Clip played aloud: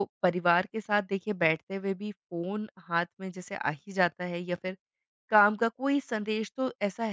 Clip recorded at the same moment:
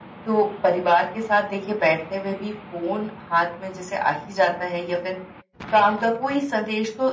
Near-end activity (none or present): none